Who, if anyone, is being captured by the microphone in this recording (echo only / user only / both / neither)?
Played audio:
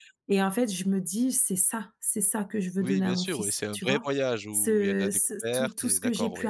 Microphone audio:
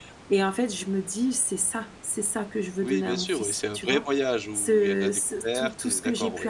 echo only